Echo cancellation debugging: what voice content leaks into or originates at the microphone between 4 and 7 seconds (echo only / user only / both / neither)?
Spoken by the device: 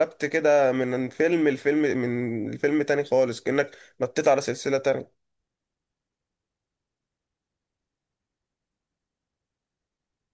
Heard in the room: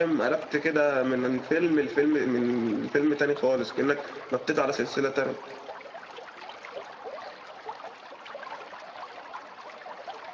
echo only